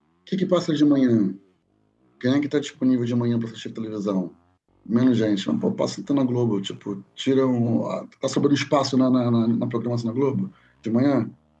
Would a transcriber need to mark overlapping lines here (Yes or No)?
No